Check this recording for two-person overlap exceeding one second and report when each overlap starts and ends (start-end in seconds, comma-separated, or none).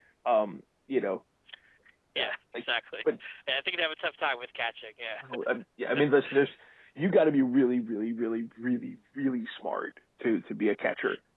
none